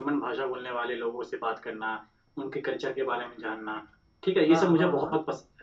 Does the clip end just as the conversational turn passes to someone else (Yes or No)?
No